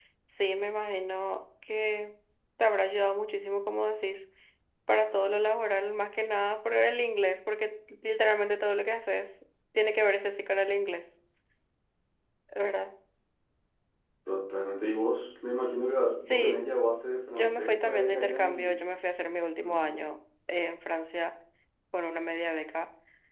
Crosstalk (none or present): present